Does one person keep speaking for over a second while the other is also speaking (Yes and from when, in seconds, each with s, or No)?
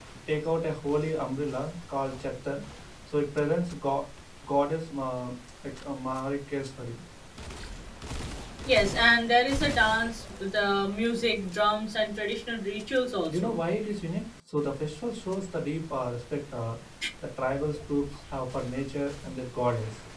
No